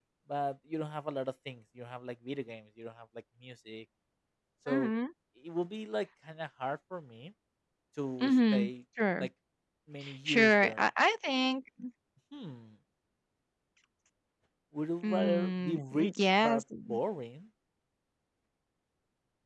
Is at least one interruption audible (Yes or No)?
Yes